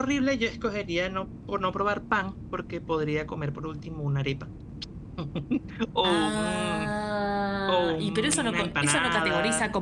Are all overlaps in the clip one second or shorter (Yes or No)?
No